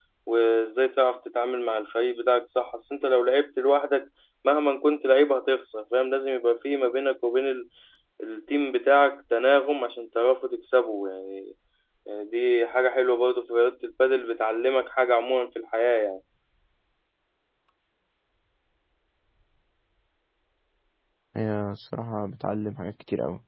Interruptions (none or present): none